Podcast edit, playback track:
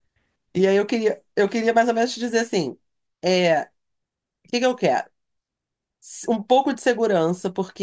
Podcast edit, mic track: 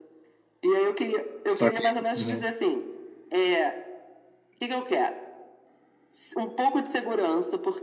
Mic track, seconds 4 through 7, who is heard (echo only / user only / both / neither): echo only